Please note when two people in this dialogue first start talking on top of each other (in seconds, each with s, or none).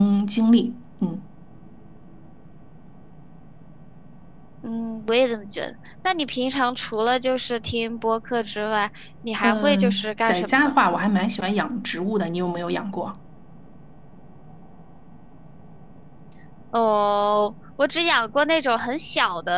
9.4 s